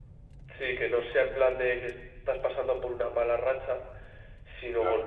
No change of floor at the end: Yes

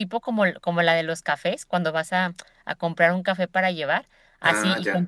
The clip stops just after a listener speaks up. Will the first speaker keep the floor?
Yes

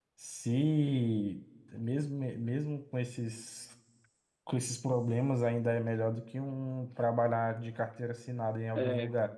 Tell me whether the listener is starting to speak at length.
Yes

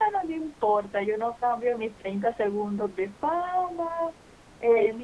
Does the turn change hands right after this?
No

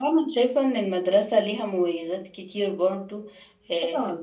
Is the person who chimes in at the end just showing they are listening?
Yes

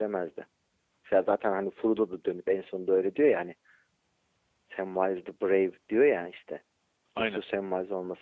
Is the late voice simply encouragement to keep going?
Yes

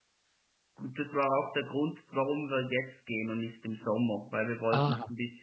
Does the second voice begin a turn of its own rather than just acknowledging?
No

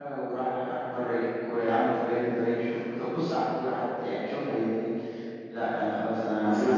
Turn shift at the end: Yes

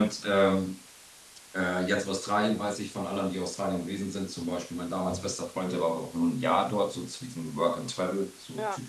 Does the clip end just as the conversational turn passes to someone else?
No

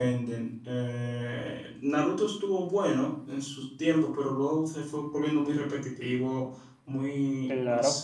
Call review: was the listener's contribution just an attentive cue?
Yes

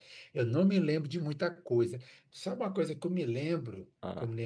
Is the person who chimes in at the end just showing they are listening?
Yes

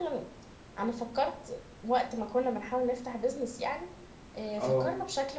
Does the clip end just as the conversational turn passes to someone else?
No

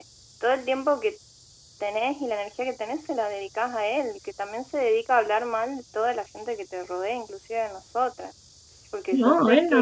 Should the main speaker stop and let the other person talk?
Yes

